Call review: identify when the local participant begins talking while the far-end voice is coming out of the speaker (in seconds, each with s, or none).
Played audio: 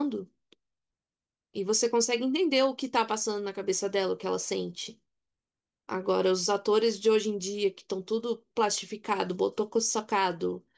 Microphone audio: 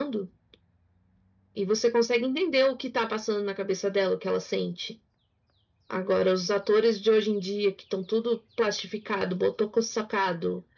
none